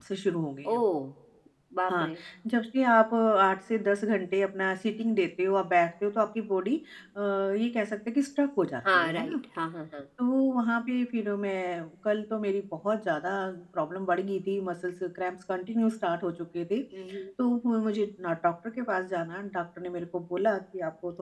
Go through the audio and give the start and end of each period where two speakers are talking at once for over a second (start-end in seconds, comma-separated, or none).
none